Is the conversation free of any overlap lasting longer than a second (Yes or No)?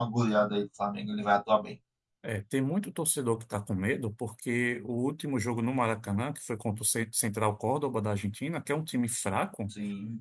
Yes